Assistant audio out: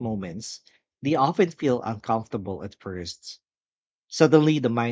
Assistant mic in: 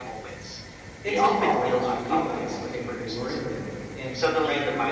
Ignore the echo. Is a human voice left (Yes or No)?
Yes